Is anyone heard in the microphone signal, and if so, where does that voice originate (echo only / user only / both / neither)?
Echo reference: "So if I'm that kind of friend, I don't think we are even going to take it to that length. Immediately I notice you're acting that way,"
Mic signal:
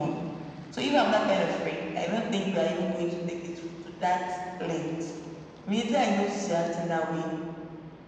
echo only